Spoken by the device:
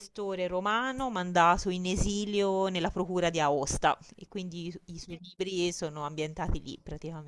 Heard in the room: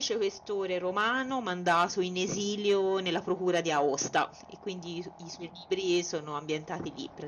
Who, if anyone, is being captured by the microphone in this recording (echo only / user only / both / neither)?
echo only